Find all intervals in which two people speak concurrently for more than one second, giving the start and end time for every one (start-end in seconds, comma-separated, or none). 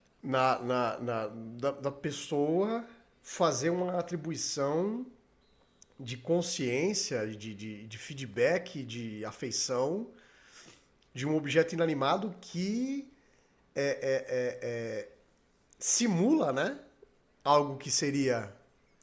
none